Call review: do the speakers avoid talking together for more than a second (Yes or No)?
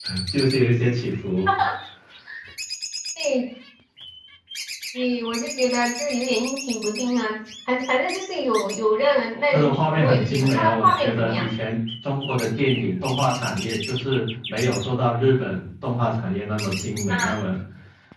No